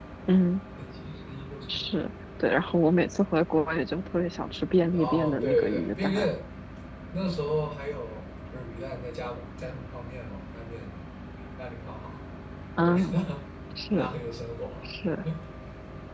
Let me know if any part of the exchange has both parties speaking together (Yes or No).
Yes